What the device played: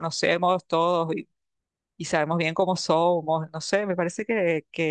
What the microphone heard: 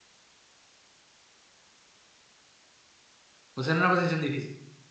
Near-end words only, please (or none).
Pues en una posición difícil.